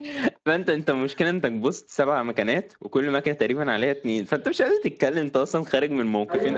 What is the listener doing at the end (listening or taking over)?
taking over